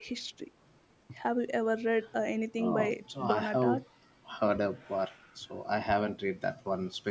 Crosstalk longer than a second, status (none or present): present